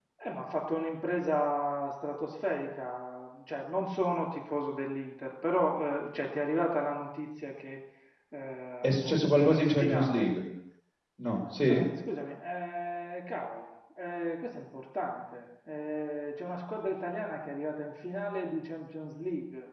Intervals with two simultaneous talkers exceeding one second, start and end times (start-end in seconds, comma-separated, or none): 8.8-10.3